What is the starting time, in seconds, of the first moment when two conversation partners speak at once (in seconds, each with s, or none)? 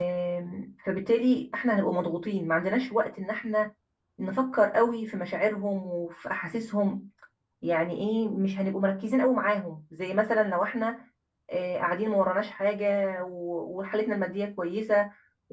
none